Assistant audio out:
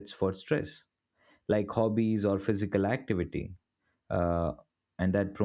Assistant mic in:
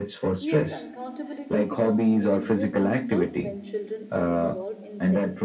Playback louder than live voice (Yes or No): Yes